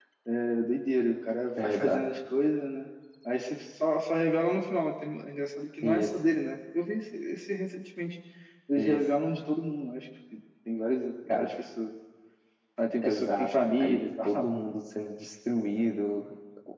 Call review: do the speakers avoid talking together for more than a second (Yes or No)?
No